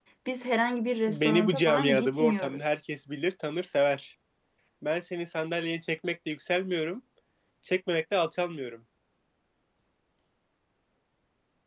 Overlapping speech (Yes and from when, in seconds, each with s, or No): Yes, from 1.1 s